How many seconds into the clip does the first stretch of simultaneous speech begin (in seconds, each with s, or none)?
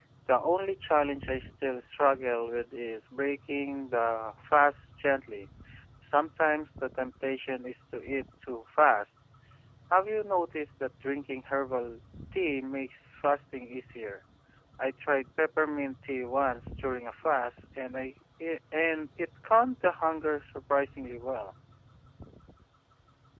none